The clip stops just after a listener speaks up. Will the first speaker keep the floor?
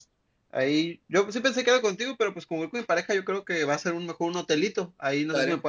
Yes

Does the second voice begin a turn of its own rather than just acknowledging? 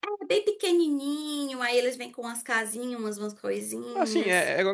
Yes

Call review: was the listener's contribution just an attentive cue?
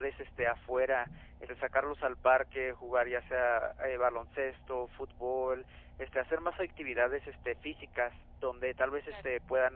Yes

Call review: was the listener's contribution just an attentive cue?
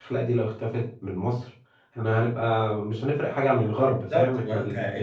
No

